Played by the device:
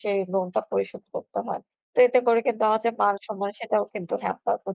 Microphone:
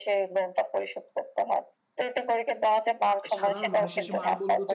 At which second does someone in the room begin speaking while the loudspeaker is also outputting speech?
3.1 s

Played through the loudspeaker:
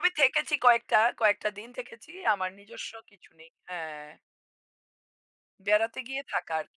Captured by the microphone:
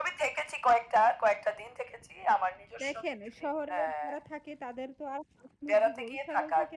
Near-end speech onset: 2.8 s

